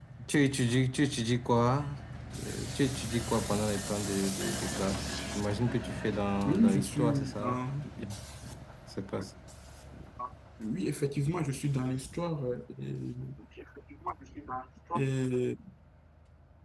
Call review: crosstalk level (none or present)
present